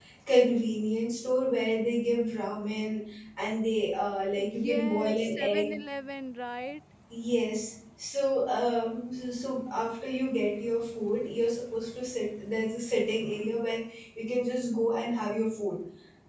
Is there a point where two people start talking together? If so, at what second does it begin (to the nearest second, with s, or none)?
4 s